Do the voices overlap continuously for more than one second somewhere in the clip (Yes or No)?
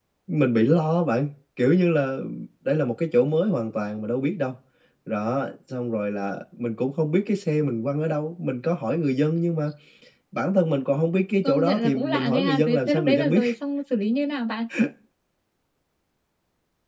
Yes